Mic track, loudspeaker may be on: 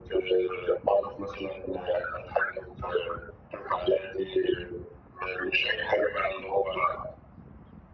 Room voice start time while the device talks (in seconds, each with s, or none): none